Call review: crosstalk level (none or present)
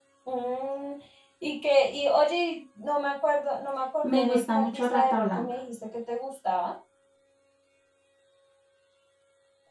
present